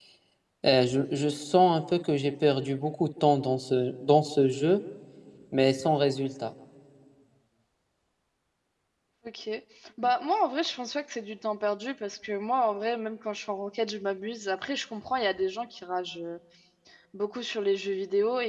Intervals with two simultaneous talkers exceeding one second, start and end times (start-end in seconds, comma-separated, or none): none